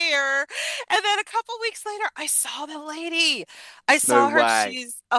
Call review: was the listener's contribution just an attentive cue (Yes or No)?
Yes